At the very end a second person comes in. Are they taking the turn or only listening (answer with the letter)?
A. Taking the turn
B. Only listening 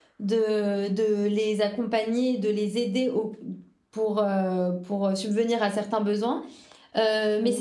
B